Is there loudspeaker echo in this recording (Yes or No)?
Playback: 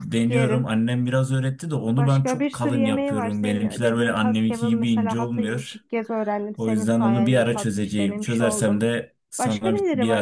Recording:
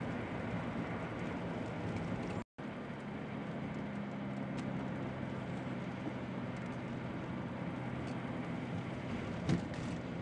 No